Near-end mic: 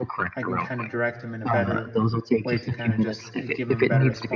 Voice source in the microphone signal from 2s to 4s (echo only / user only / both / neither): both